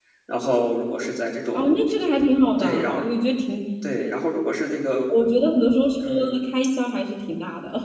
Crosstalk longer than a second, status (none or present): none